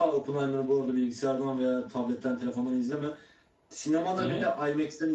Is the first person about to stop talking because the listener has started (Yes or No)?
No